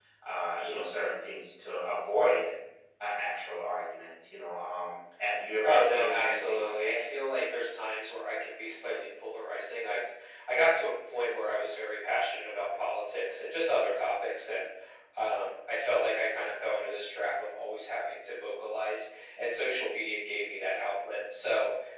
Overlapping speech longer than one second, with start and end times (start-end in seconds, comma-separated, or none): 5.6-7.0